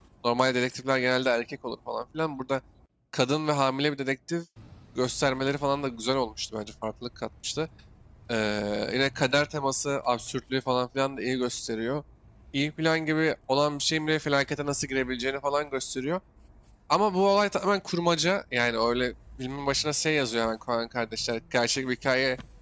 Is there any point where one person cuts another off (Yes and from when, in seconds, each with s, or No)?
No